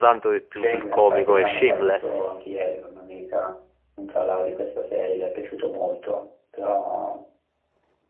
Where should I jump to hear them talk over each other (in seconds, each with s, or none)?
0.5 s